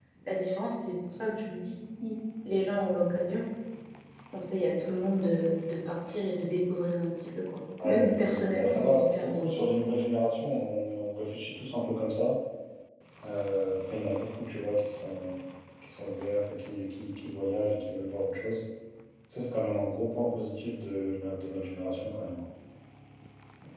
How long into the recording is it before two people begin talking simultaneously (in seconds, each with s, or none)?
7.8 s